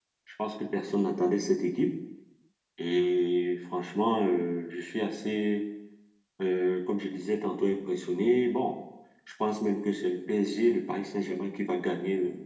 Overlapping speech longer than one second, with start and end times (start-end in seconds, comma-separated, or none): none